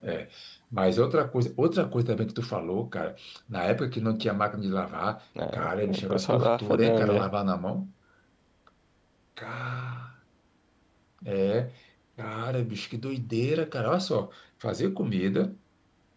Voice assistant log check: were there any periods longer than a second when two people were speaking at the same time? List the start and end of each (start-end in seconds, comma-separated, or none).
5.5-7.3